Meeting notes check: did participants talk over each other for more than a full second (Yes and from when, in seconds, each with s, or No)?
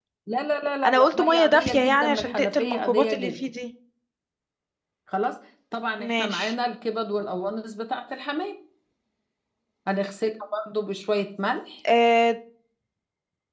Yes, from 0.8 s